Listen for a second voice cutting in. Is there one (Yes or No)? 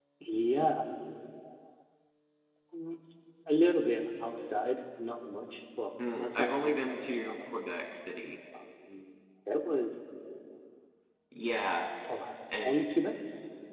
Yes